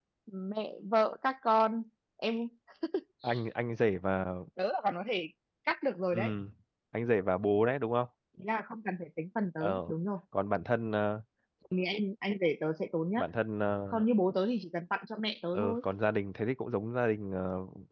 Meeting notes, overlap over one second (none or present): none